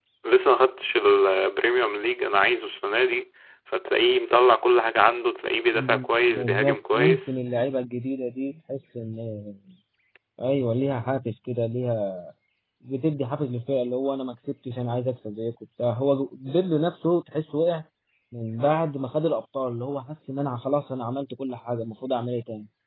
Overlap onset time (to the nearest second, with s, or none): 6 s